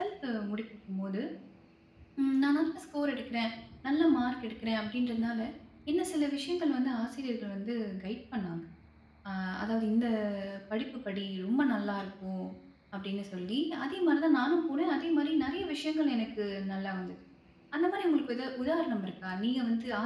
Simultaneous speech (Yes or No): No